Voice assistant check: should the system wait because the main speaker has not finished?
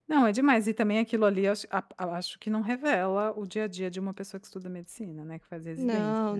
No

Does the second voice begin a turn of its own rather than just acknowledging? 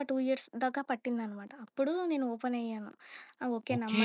Yes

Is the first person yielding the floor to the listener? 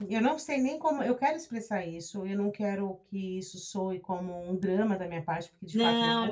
Yes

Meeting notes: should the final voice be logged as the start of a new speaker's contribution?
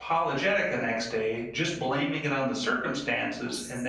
No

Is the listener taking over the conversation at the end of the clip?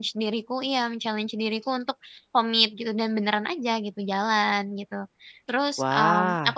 No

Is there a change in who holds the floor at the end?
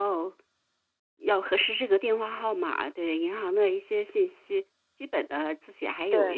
No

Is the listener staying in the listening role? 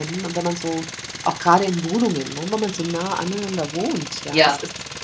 Yes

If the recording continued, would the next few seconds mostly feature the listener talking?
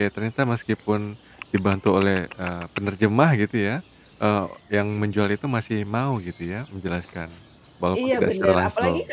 Yes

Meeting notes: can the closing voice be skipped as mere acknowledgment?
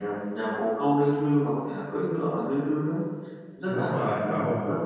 No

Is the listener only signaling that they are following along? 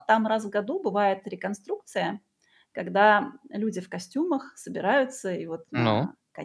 Yes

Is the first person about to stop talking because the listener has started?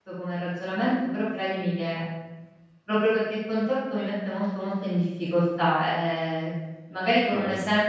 No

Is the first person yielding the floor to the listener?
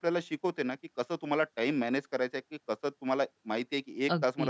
No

